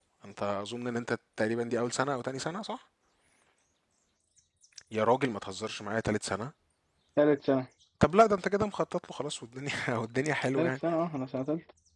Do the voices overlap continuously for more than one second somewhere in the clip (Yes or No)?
No